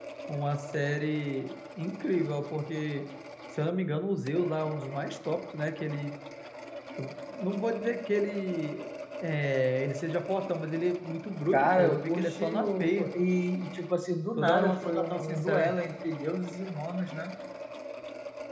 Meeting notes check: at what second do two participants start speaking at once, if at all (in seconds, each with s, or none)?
11.5 s